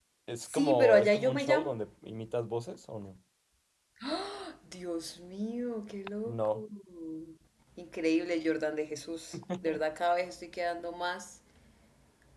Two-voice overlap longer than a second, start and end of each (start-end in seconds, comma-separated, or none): 0.5-1.8